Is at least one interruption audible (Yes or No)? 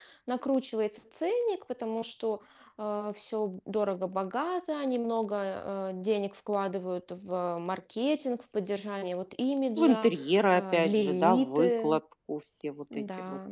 Yes